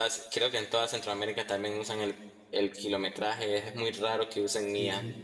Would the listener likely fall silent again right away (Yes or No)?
No